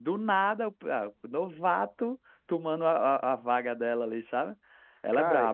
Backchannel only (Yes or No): No